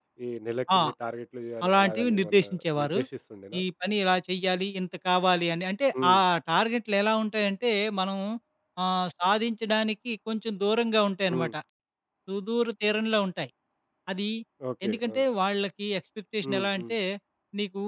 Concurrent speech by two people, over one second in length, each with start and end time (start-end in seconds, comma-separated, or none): 1.7-3.0